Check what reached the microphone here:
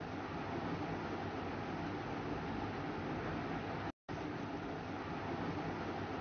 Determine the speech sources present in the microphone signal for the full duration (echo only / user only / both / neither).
neither